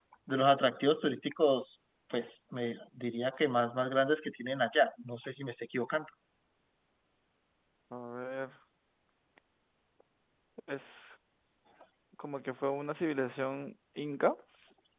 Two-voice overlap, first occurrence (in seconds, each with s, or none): none